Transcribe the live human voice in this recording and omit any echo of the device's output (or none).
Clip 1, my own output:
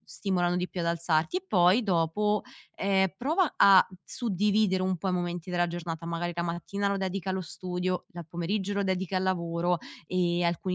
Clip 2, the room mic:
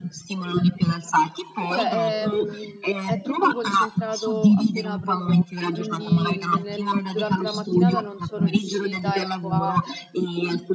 cioè, ehm, è tutto concentrato appena apro gli occhi, quindi ne nel durante la mattinata non sono riuscita, ecco, a